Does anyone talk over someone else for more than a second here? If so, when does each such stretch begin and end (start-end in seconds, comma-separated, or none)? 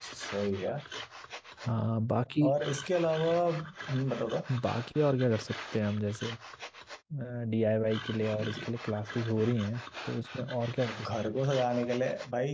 none